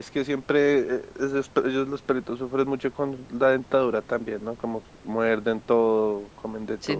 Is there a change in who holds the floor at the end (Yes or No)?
Yes